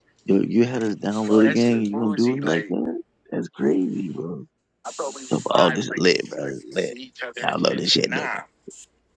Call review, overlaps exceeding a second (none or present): present